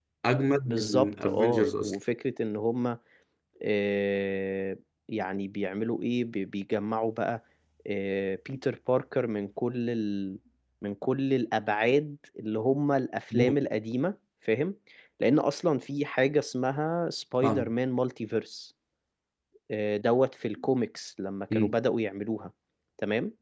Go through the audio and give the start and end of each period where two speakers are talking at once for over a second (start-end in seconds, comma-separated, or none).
0.7-1.9